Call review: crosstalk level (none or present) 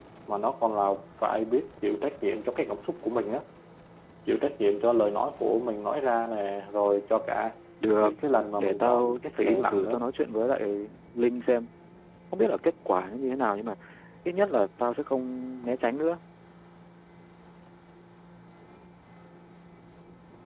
present